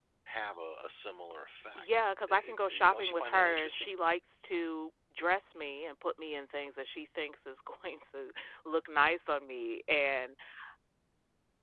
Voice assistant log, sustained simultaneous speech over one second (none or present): present